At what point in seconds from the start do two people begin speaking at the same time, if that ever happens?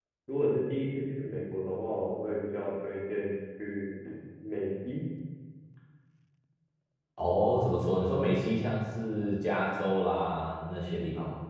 none

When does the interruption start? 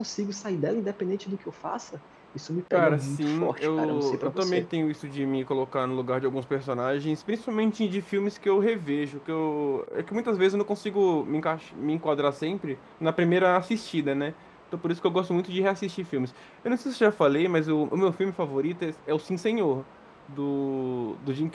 2.7 s

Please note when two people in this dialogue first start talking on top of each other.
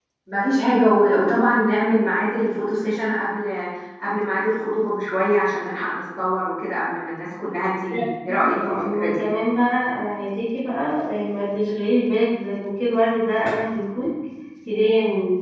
7.9 s

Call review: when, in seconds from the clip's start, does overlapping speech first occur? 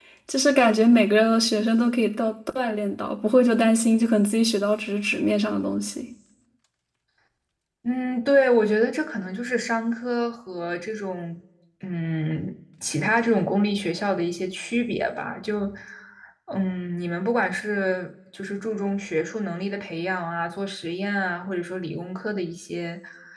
none

